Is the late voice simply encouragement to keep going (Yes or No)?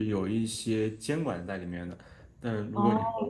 Yes